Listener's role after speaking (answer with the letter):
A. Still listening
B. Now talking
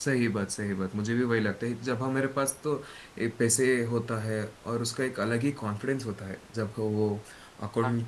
A